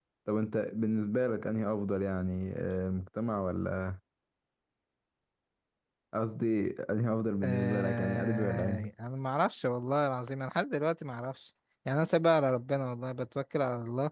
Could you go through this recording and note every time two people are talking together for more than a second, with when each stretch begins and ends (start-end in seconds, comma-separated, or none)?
7.4-8.9